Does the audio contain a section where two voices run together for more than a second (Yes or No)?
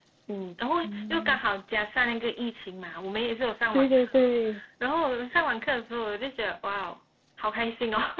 No